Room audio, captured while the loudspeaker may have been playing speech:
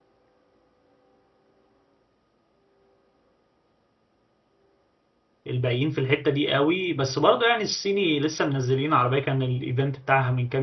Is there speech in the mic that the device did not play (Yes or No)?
Yes